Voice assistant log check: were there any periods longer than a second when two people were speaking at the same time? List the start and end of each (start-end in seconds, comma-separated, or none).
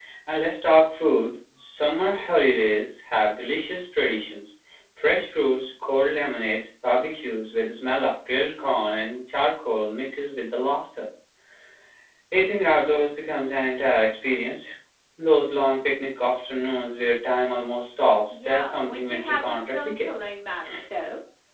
18.3-20.1